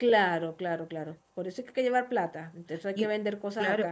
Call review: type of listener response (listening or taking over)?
taking over